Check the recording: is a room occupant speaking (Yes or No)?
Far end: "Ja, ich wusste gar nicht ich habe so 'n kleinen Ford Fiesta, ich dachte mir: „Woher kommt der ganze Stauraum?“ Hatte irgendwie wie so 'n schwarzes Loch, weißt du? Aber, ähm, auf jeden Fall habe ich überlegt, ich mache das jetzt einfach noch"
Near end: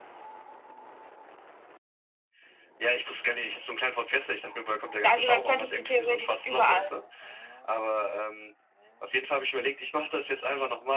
Yes